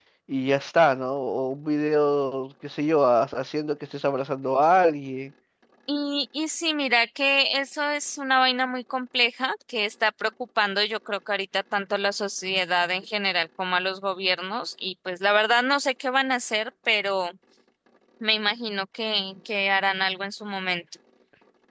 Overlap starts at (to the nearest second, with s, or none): none